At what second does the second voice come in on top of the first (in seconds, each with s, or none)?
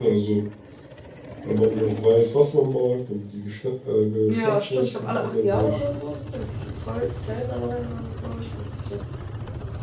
4.3 s